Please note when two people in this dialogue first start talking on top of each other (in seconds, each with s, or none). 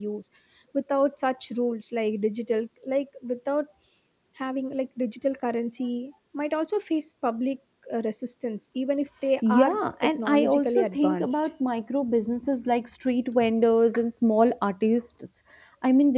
9.4 s